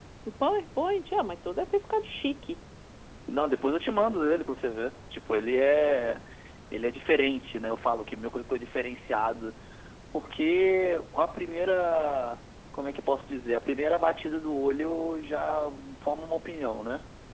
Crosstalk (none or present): none